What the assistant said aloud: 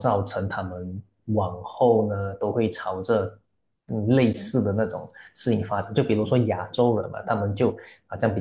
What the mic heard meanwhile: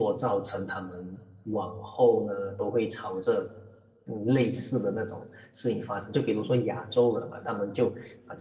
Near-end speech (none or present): none